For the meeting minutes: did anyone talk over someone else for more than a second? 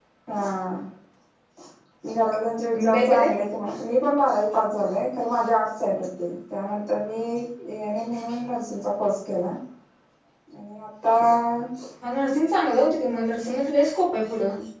No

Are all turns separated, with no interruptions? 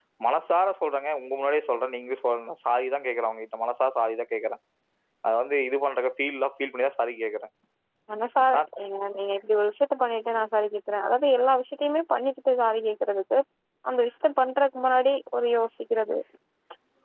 Yes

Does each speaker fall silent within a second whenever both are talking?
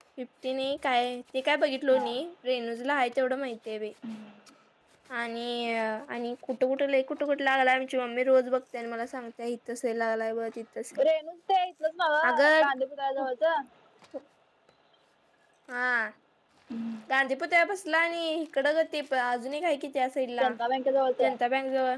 Yes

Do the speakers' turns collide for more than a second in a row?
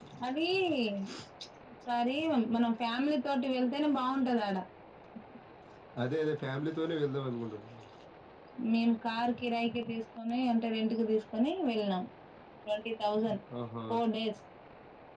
No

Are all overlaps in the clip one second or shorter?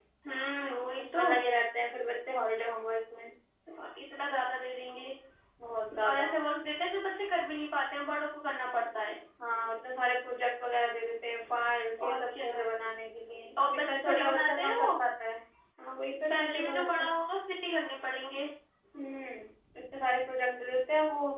No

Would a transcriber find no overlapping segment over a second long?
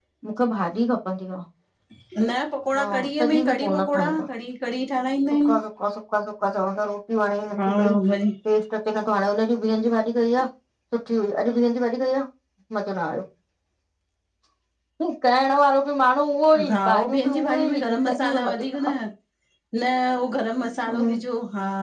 No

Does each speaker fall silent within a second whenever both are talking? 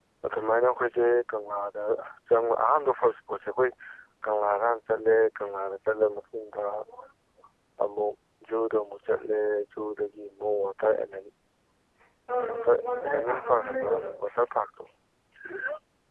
No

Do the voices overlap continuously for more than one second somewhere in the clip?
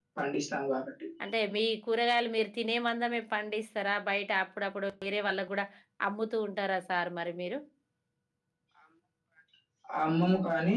No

